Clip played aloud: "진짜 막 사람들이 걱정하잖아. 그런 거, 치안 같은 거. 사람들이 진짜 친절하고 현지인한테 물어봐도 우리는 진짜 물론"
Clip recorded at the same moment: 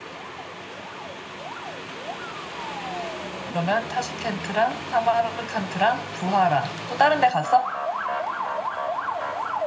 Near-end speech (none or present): present